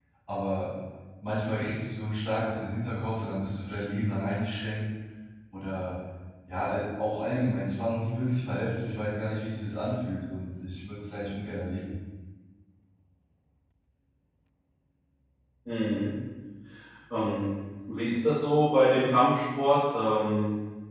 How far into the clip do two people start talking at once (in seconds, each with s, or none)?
none